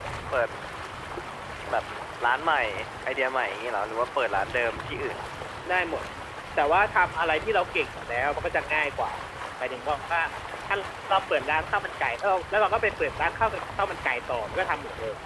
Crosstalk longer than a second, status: none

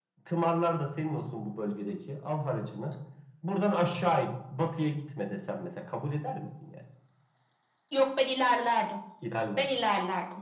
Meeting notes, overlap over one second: none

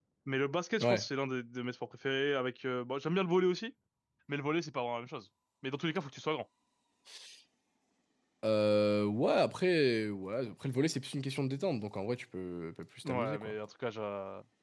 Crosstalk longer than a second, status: none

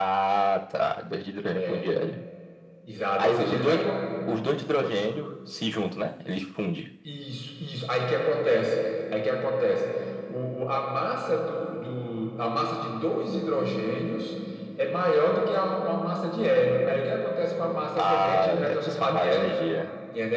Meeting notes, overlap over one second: present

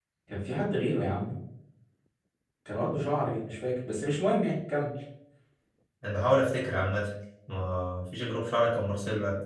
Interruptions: none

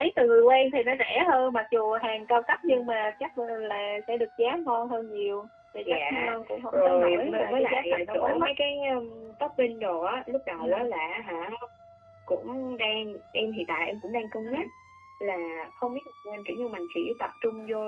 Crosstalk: present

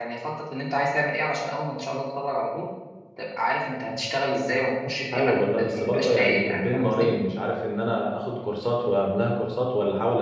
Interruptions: present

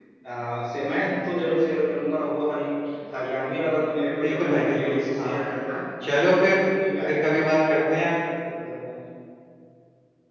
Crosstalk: present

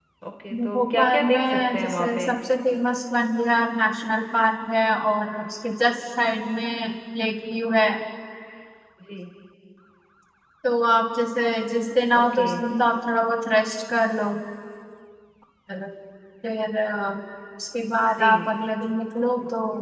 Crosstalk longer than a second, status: present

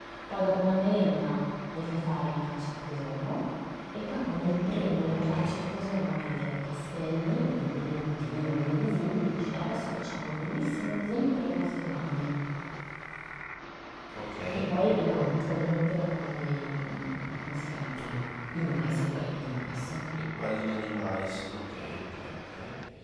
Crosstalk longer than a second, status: none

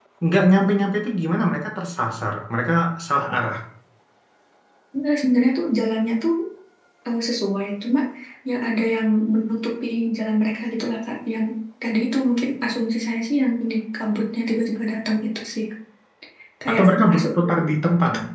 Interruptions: present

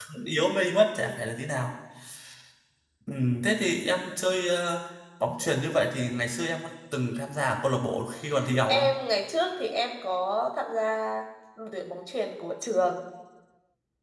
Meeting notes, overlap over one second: none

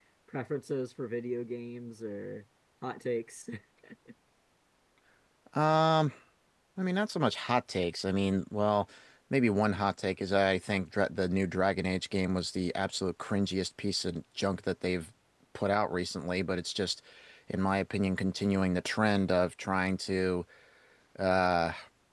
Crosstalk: none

